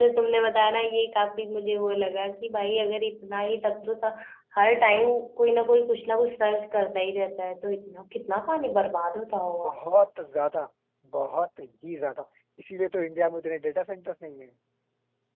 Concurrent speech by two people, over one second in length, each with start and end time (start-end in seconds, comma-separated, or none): none